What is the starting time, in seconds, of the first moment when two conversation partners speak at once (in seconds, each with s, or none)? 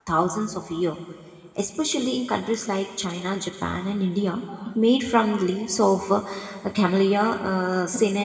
none